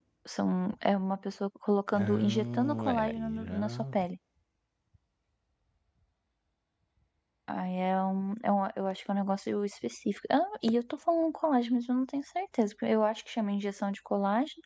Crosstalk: present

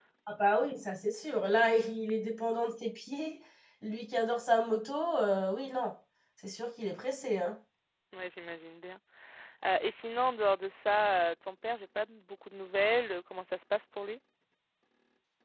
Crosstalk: none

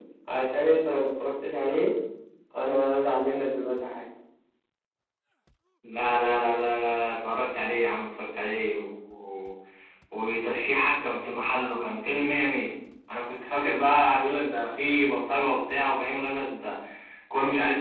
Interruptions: none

